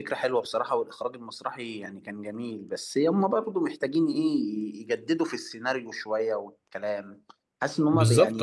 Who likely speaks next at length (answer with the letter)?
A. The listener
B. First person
A